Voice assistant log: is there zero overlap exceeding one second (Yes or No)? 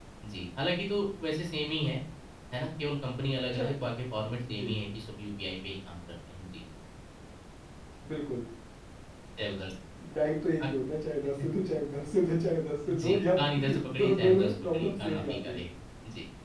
No